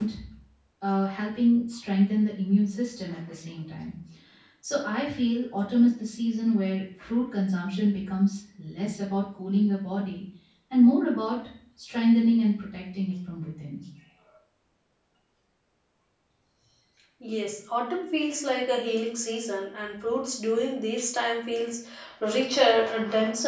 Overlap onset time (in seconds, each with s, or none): none